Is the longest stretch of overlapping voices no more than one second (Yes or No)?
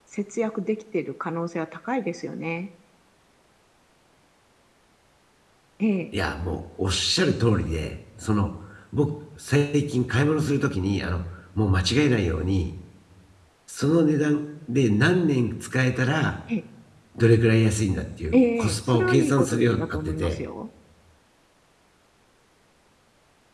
No